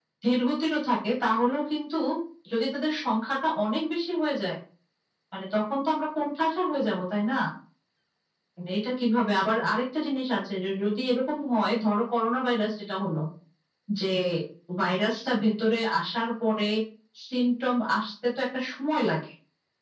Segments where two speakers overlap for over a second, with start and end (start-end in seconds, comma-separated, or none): none